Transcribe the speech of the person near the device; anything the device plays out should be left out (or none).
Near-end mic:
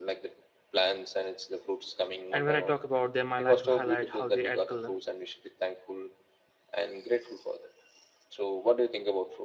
And when I talk about them, I like to highlight how they add color,